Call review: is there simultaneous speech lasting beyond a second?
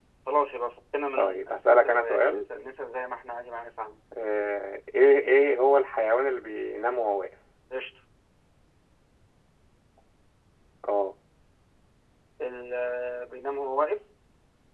Yes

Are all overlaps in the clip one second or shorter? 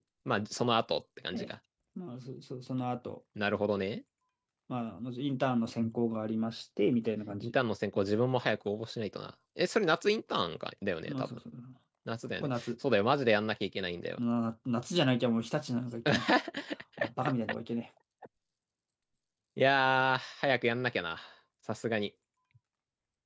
Yes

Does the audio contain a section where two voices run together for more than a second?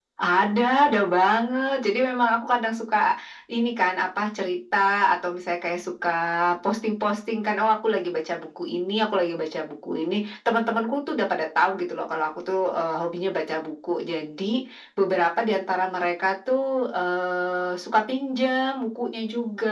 No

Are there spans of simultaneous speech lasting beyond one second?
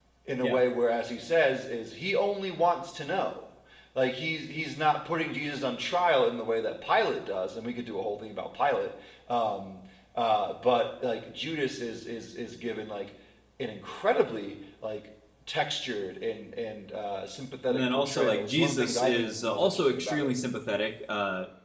Yes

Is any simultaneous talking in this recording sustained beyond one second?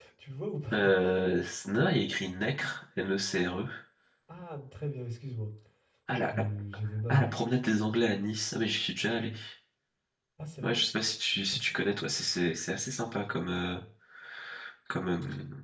No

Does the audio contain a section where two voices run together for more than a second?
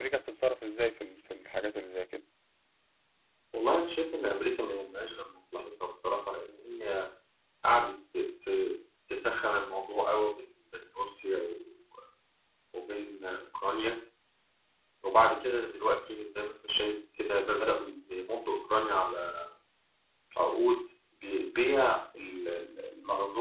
No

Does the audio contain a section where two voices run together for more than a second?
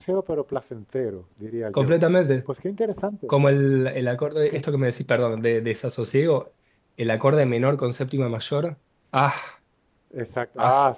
No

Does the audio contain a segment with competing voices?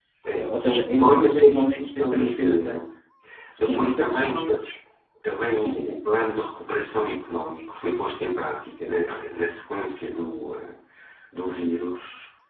Yes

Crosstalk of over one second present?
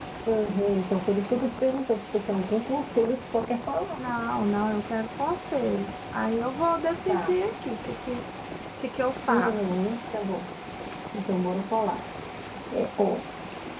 No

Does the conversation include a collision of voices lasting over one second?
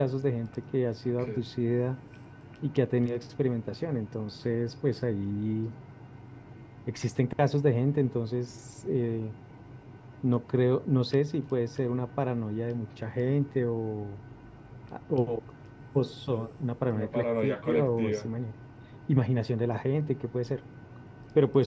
Yes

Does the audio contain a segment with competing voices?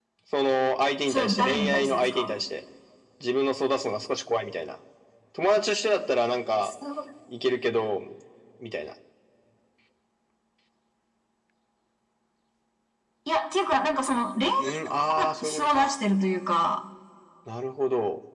Yes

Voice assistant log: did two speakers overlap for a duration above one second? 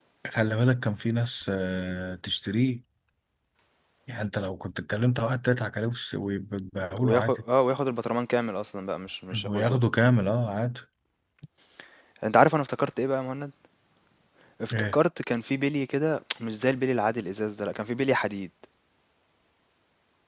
No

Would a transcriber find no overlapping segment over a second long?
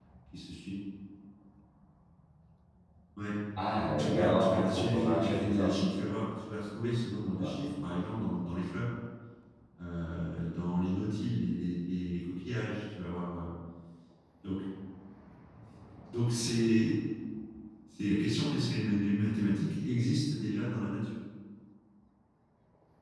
No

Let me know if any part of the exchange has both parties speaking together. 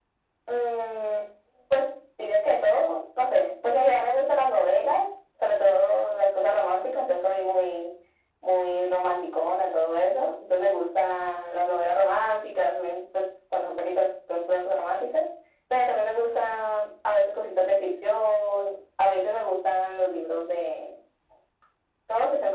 No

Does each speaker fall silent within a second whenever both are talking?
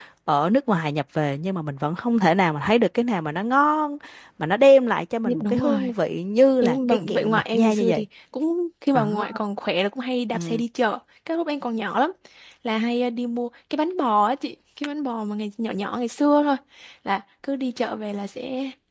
No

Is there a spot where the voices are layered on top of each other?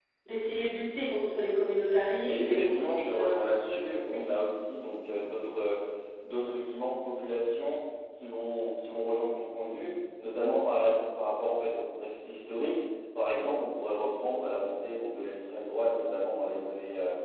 Yes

